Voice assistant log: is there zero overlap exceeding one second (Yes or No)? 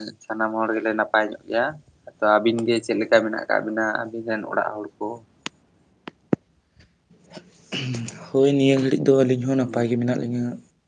Yes